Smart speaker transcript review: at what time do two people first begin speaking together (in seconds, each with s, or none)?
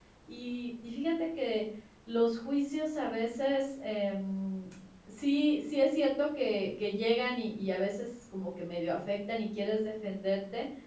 none